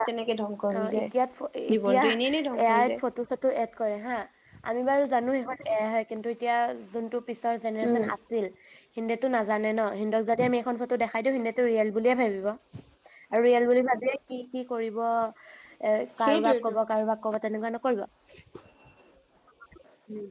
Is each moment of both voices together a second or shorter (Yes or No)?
No